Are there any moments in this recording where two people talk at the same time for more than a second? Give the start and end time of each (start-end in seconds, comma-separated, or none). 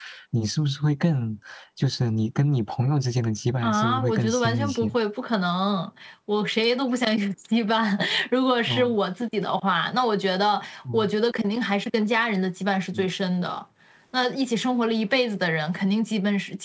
3.6-5.0